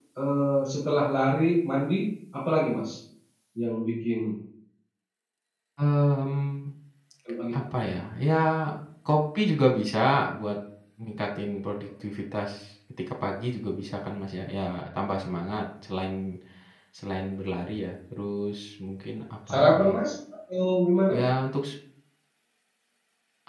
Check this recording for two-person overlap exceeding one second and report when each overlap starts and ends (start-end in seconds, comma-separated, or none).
none